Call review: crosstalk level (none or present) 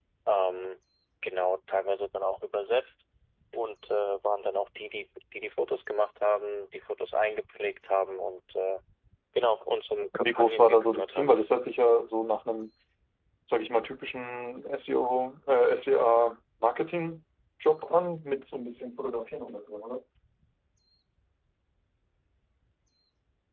present